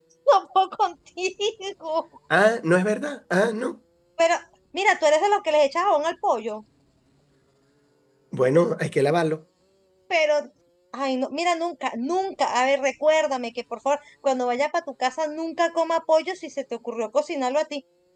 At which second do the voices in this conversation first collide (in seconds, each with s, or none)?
none